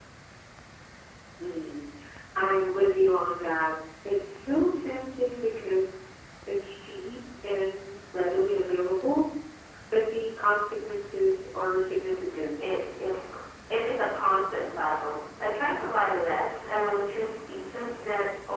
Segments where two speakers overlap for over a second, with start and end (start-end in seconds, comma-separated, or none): none